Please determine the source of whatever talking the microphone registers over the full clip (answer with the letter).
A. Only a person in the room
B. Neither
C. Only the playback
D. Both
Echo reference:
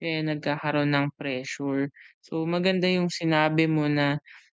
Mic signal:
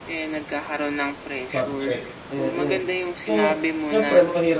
D